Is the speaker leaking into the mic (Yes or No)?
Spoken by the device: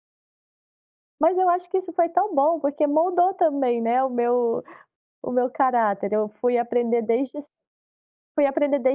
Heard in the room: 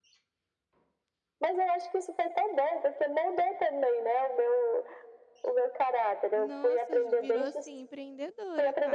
Yes